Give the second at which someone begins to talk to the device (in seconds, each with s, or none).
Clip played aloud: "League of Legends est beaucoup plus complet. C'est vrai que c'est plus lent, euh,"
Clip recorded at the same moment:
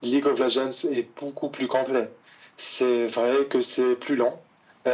none